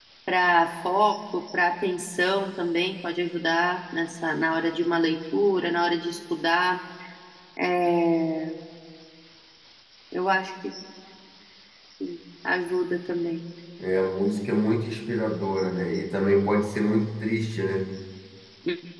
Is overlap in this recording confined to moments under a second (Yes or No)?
Yes